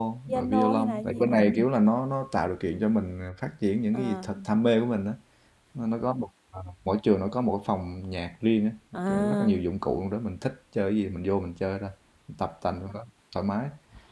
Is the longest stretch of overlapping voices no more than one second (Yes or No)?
No